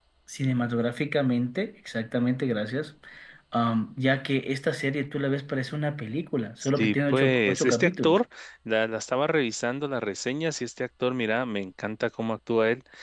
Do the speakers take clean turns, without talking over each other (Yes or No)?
No